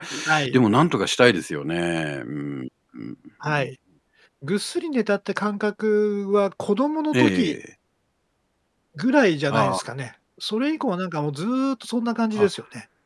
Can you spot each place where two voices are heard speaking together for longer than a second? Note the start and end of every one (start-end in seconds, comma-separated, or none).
none